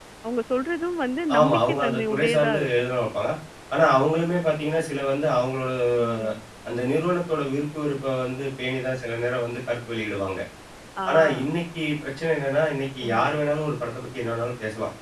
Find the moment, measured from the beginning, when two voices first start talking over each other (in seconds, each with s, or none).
1.4 s